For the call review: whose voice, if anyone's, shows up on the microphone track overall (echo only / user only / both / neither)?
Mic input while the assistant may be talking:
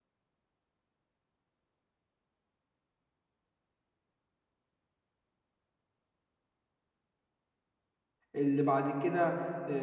user only